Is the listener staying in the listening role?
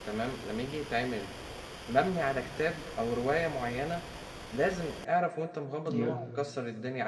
Yes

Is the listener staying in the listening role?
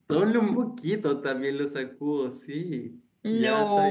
No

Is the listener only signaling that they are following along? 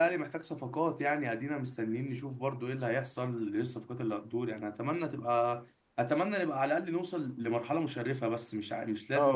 No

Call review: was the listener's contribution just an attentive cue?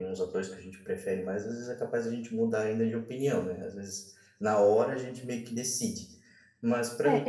No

